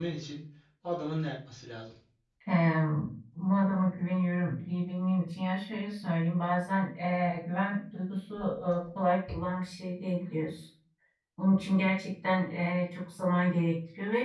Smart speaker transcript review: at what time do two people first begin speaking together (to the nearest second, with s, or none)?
none